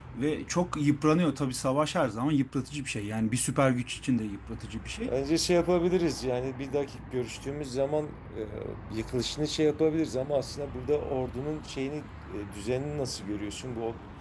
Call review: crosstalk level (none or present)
none